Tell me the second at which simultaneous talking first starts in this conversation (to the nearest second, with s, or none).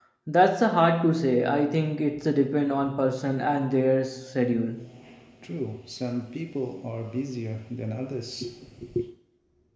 none